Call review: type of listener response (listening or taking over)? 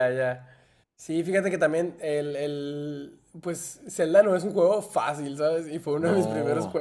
listening